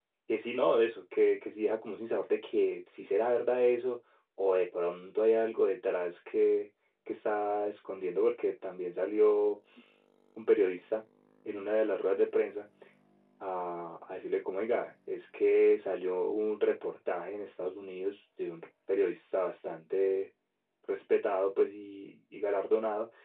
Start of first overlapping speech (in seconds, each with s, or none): none